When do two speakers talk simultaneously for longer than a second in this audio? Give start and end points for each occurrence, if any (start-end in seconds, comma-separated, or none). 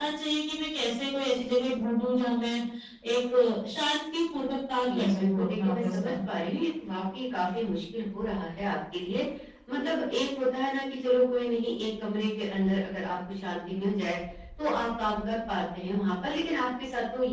4.9-6.1